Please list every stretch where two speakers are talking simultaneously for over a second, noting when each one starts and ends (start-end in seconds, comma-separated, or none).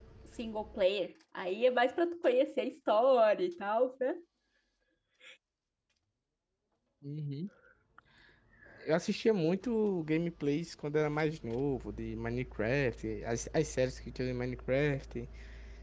none